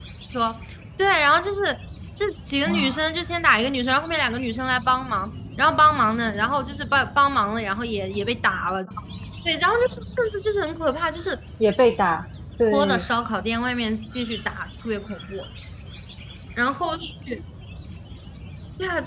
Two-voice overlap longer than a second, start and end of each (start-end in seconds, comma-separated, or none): none